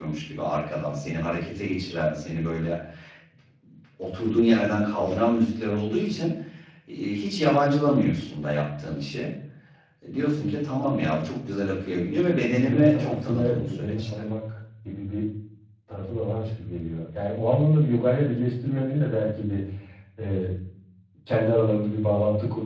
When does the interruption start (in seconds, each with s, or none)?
12.5 s